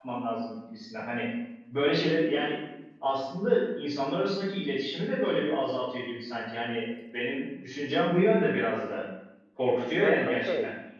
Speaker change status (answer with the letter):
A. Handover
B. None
A